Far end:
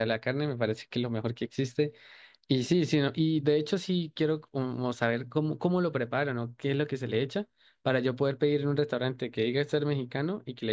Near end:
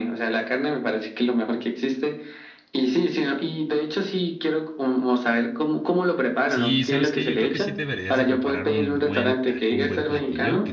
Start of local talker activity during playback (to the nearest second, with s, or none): 6 s